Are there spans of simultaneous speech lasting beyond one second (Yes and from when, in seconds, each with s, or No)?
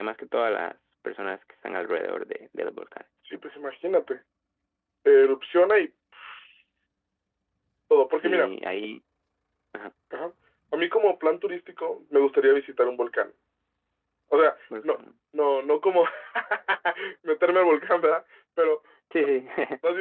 No